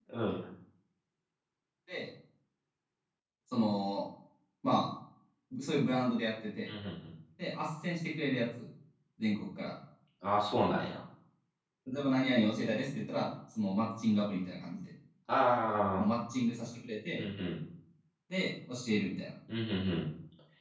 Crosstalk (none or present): none